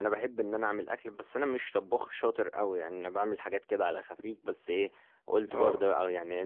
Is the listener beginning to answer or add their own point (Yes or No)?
No